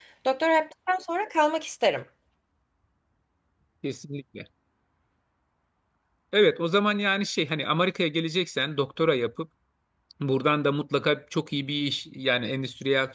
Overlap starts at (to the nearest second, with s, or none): none